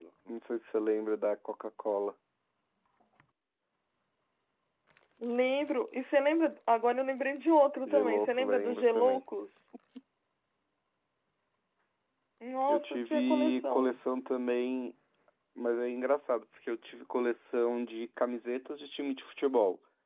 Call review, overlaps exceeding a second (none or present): present